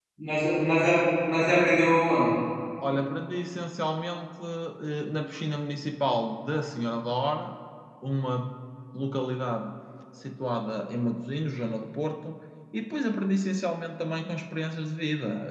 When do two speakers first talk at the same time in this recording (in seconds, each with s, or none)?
none